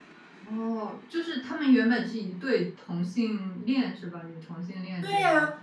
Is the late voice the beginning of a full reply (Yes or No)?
Yes